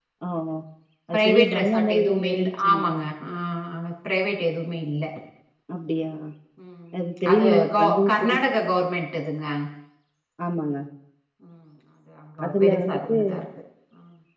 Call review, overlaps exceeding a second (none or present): present